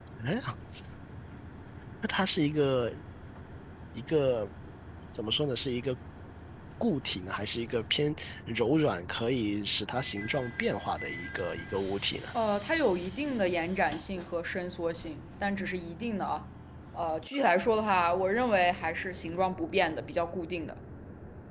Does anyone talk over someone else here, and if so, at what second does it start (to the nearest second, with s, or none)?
none